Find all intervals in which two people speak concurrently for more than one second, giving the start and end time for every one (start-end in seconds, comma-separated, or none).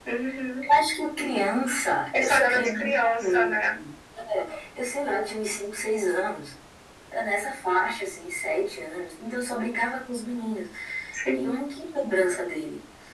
2.1-3.5